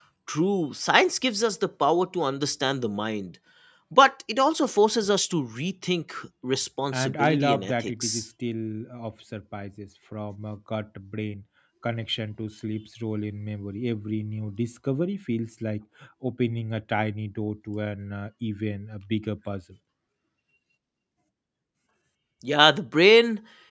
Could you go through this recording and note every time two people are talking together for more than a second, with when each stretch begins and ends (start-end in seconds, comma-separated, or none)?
6.9-8.2